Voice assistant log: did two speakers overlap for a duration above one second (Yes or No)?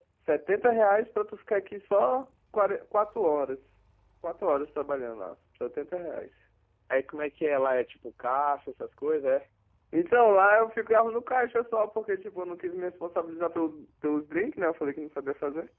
No